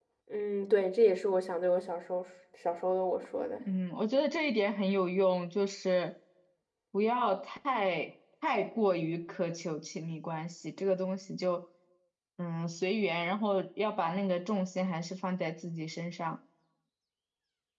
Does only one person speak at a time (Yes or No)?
Yes